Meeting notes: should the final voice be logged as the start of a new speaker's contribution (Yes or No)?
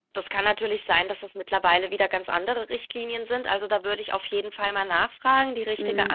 No